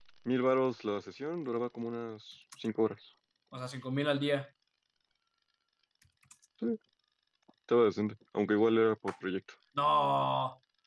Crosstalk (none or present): none